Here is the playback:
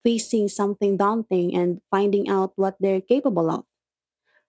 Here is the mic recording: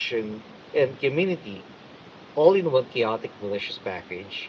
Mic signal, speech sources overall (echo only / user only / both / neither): user only